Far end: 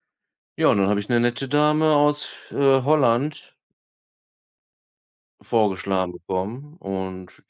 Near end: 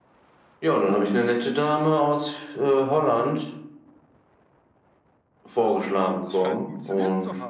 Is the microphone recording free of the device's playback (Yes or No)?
No